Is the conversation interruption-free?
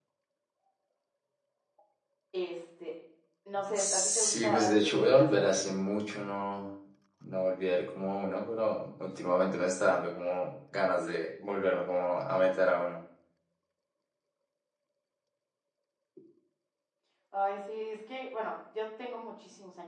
No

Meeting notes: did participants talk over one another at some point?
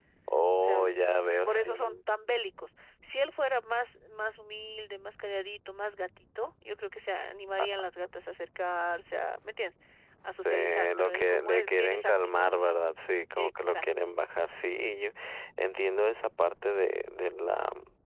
Yes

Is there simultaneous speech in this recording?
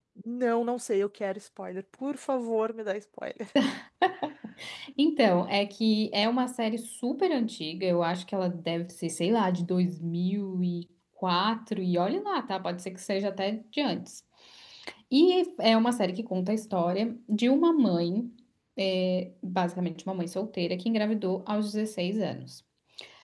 No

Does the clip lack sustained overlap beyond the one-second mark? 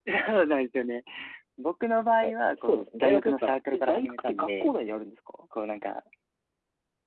No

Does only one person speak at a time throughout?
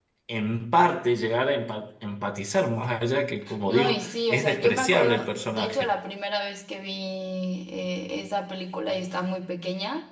No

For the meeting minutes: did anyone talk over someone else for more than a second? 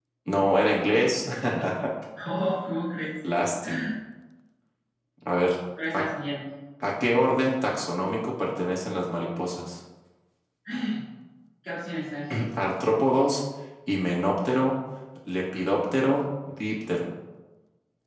No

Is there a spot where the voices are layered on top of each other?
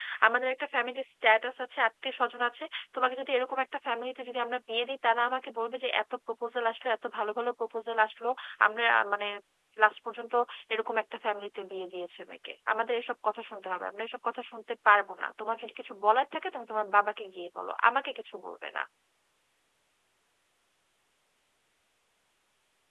No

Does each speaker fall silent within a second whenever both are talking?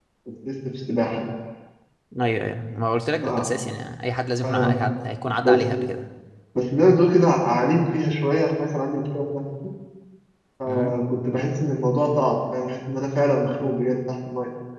Yes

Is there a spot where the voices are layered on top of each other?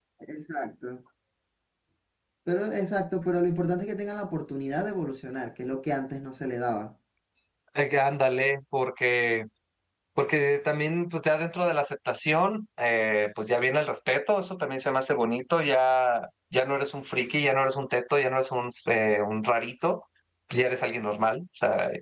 No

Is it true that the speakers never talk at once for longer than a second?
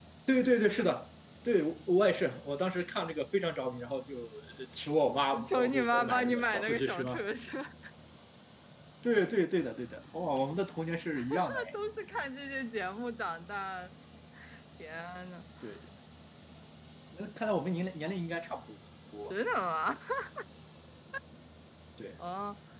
No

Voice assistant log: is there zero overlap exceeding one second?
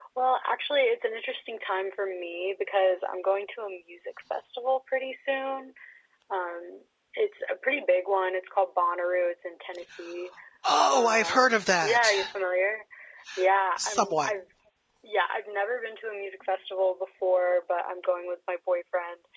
No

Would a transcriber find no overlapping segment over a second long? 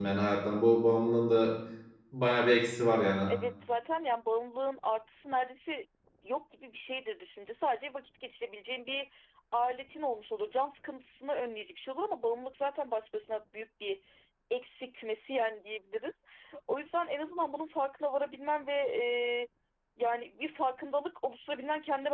Yes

